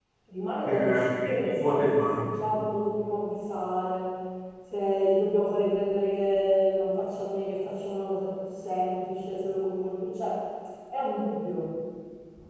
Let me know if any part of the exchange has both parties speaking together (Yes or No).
Yes